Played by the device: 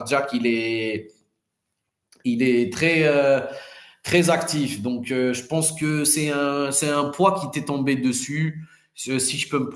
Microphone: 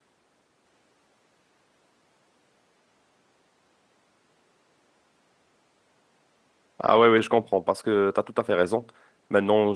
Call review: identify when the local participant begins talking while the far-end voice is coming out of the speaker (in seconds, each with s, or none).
6.8 s